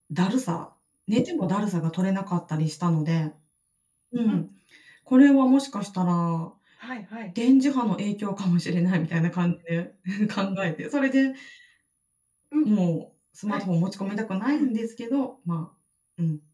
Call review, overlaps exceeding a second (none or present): none